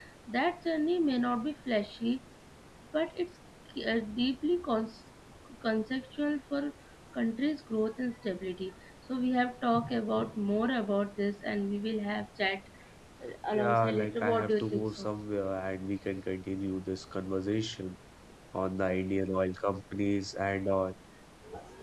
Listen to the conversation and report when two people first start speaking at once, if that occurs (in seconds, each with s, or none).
13.5 s